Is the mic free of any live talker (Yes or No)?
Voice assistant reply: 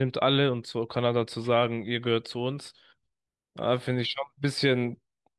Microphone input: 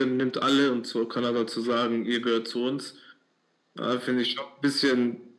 Yes